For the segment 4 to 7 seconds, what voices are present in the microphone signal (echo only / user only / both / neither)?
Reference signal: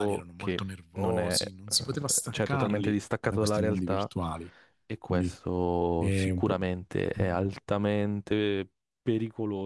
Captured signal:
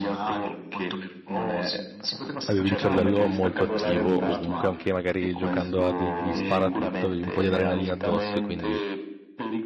both